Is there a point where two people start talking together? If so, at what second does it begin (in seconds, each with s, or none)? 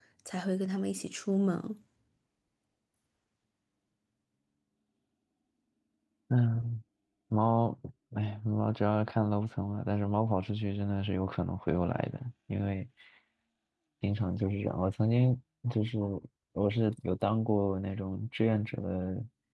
none